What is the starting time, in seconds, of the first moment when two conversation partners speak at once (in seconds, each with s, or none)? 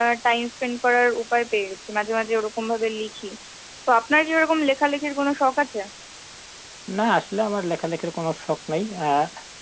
none